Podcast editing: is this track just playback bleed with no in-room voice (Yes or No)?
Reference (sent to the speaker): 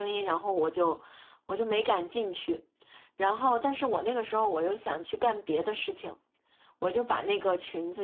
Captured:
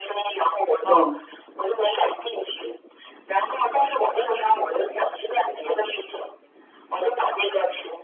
No